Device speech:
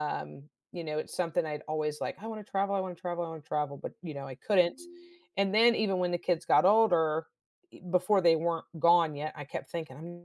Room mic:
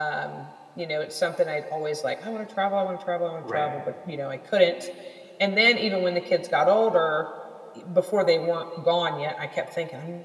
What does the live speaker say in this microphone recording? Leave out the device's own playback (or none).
Right.